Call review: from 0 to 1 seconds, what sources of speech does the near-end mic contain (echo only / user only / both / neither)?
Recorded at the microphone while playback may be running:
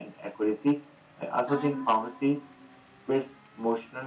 echo only